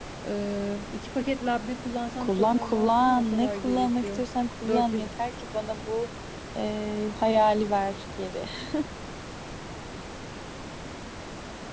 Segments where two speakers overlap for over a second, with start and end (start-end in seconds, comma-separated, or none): 2.2-4.2